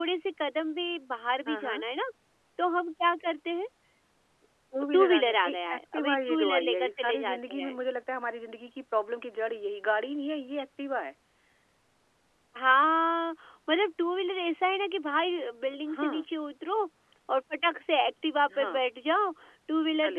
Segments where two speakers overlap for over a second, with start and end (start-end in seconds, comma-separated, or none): 4.9-7.7